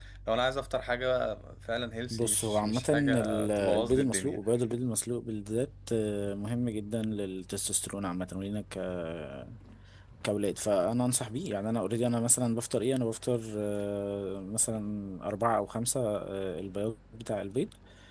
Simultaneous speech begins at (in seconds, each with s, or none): 2.1 s